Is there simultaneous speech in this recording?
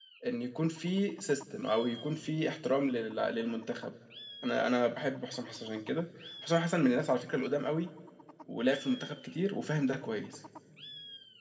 No

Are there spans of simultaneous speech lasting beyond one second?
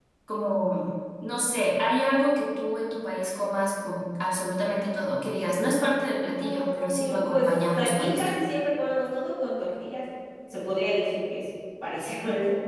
Yes, from 6.3 s

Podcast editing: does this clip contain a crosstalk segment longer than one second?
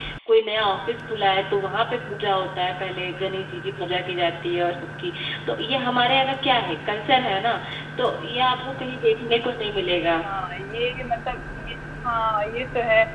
No

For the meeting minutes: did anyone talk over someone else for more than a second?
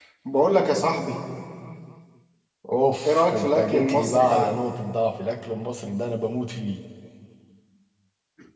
Yes, from 3.0 s

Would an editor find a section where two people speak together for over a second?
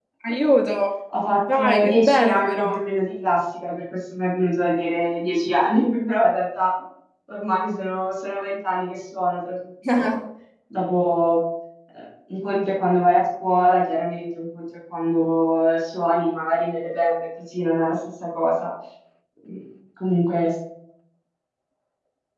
Yes, from 1.4 s

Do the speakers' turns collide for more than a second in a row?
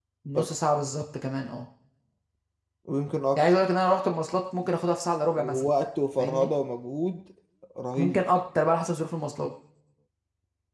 No

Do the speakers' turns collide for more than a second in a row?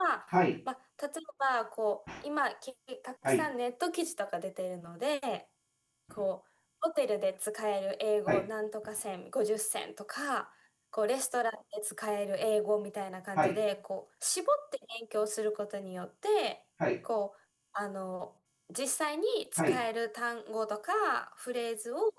No

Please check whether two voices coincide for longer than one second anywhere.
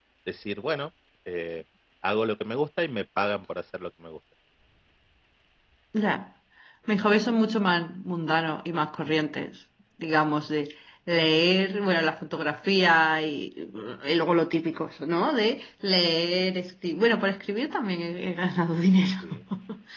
No

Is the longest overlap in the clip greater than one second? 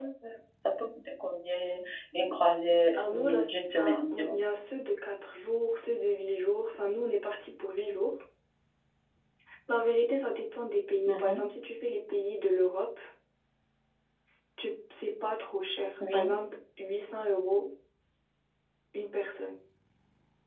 Yes, from 2.9 s

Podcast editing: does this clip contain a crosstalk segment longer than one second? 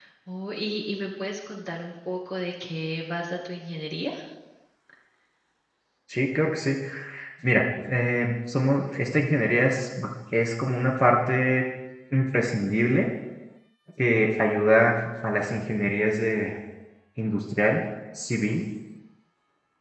No

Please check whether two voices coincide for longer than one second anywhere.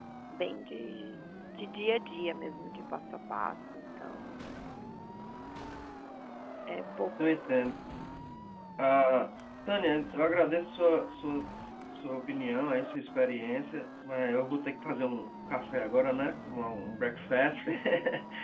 No

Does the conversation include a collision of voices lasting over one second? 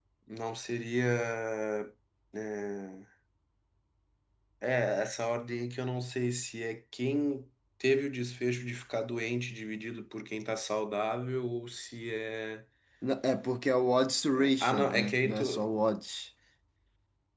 Yes, from 14.3 s

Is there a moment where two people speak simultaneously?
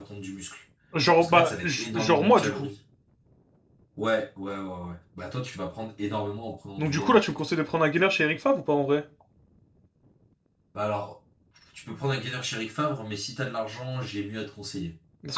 Yes, from 1.2 s

